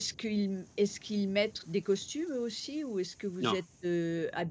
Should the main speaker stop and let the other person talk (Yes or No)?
No